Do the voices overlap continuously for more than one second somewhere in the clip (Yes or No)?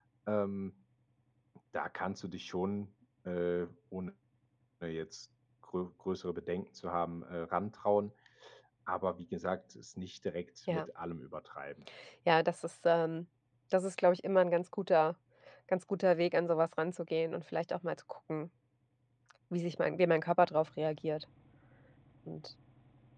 No